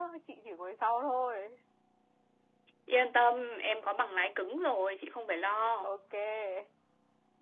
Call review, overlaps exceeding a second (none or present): none